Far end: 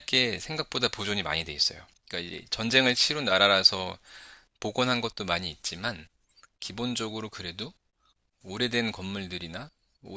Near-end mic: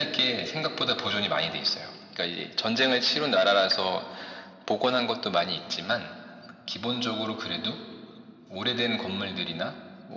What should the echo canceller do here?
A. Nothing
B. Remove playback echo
B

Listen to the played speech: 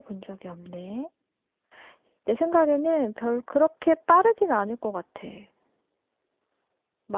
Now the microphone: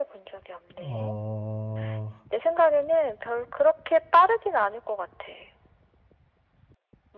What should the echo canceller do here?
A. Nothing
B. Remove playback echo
B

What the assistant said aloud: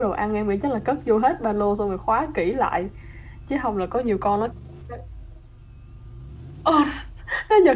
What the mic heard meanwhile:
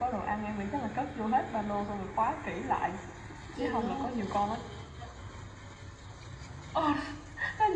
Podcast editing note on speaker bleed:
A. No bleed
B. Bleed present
B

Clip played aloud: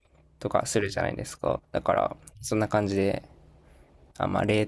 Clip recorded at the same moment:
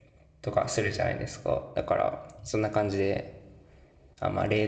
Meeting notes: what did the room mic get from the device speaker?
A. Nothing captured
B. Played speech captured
B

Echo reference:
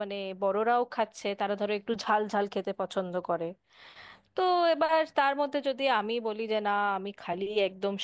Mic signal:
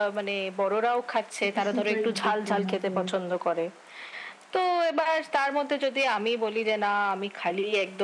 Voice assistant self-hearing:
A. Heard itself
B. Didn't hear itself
A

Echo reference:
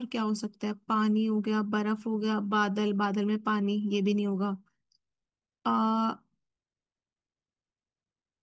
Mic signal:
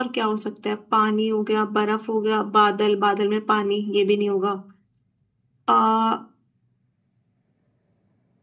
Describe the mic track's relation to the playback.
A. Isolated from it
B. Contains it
B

